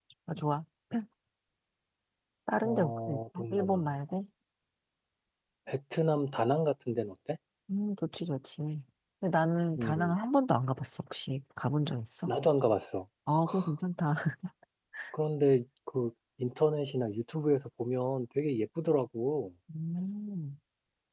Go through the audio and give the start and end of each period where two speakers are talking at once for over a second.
2.6-3.8

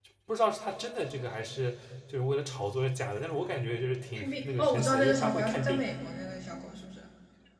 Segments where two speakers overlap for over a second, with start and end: 4.2-5.9

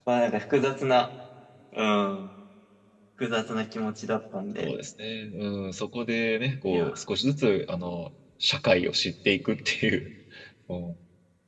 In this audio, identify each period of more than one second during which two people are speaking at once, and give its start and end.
none

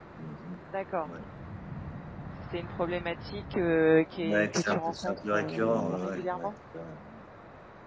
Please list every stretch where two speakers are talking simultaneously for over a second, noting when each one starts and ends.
4.2-6.5

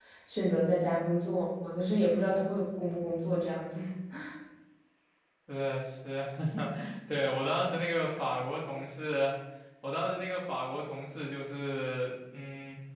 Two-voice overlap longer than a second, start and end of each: none

